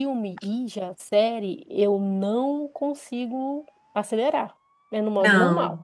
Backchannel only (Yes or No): No